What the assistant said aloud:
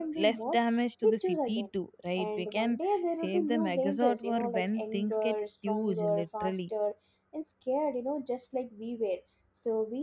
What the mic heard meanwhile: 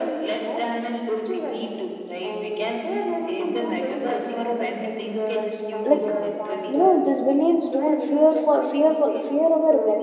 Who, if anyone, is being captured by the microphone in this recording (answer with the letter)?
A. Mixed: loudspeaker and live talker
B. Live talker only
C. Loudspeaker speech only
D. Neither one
A